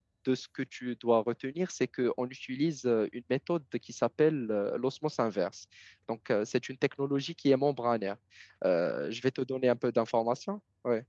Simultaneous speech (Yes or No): No